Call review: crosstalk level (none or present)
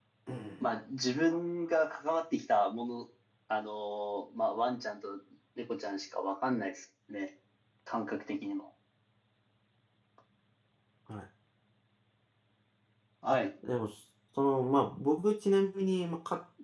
none